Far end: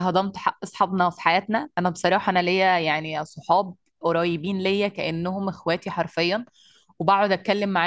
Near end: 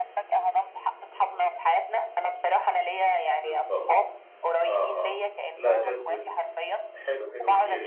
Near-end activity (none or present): present